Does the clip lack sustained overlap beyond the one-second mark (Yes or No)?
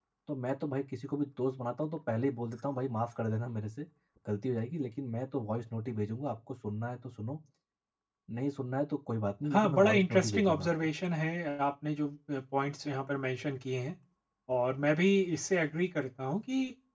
No